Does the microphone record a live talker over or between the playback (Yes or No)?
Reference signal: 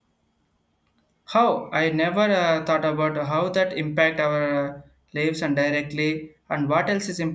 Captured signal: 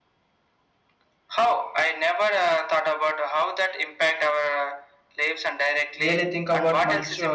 Yes